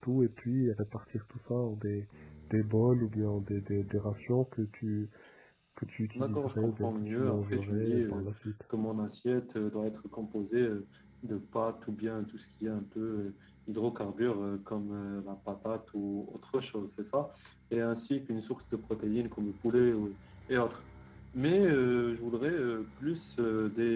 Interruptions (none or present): present